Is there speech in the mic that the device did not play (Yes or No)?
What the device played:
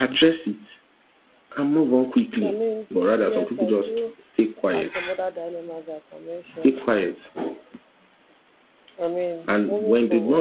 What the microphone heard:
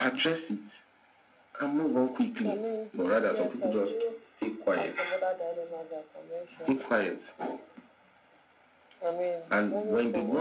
No